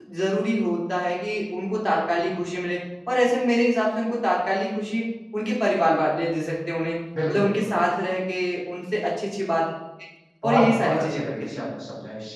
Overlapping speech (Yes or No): Yes